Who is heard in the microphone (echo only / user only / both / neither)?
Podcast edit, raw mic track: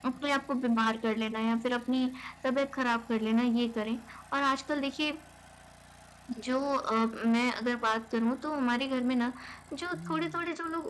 both